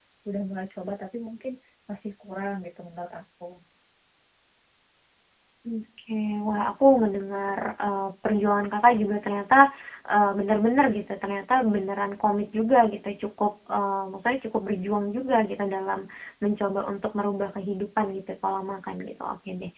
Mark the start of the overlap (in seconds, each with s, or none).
none